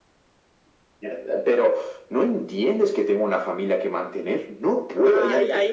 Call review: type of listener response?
taking over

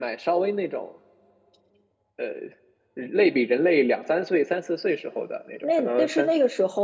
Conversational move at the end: taking over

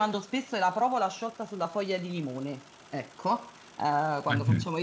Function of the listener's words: listening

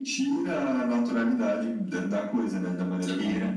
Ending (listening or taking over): taking over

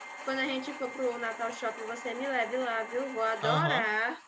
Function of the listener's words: taking over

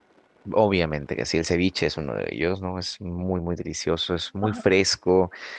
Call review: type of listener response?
listening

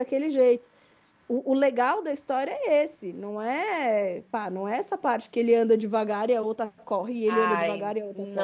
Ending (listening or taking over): taking over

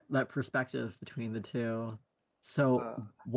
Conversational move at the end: listening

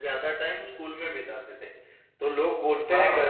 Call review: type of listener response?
listening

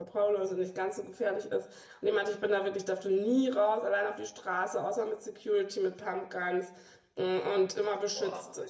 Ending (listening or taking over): listening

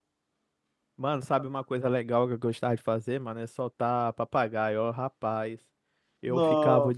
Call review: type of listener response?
listening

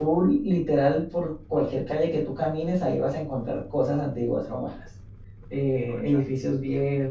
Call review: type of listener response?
listening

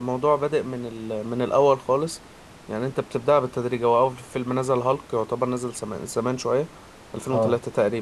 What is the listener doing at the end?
listening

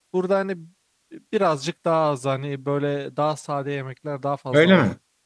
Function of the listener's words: taking over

